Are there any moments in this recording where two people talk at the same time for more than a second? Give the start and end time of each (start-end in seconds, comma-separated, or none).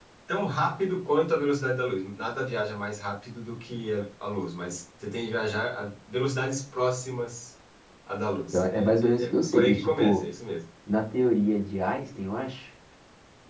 8.5-10.2